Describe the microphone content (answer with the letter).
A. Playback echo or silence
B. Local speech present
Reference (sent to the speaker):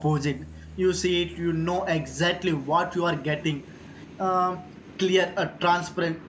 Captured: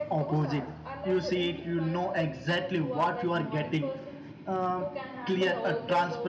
B